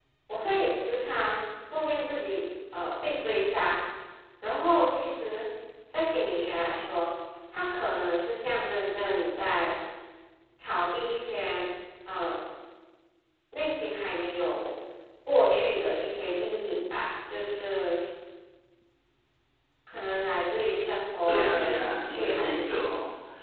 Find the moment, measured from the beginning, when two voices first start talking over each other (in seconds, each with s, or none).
21.3 s